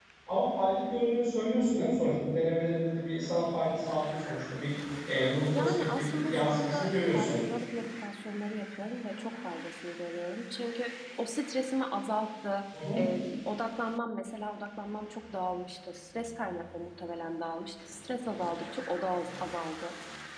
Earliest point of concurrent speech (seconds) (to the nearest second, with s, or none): 6 s